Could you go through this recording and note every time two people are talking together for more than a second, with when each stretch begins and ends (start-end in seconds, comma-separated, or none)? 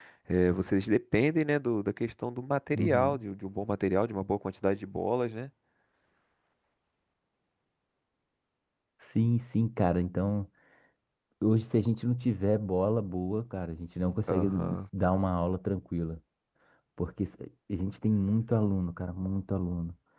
none